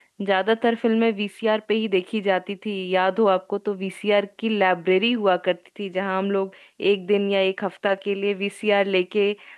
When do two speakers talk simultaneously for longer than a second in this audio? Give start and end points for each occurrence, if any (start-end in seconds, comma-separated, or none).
none